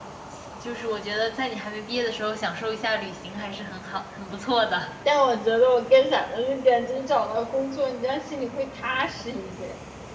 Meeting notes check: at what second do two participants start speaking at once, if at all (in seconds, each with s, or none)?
none